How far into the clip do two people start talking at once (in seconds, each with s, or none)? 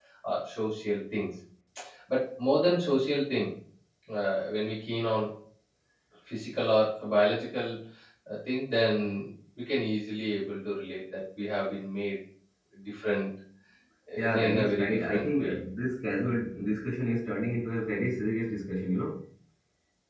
14.2 s